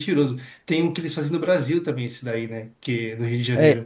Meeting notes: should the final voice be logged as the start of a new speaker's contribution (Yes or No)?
Yes